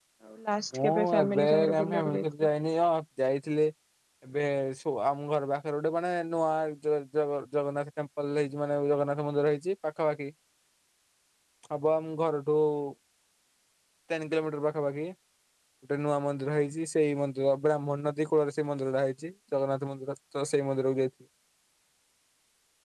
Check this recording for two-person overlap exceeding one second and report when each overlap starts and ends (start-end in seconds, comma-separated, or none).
0.7-2.2